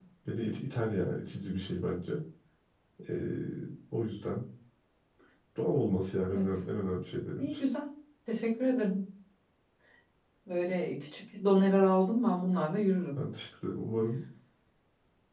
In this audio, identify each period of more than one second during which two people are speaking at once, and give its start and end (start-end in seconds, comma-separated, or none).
none